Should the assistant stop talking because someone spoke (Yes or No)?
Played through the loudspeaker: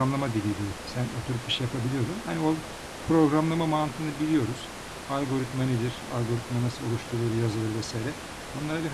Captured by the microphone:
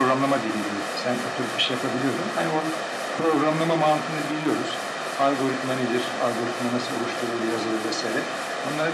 No